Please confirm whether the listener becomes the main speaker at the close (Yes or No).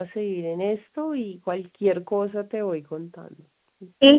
Yes